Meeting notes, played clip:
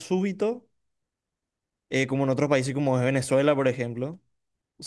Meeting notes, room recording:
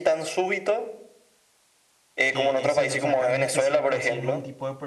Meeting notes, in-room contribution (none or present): present